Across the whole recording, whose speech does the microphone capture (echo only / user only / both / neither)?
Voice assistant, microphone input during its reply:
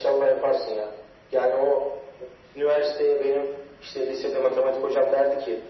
echo only